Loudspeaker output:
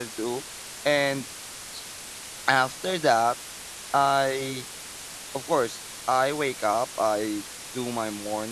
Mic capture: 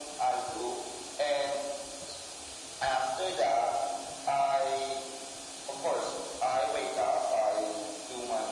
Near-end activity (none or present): none